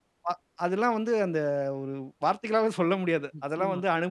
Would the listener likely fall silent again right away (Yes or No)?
Yes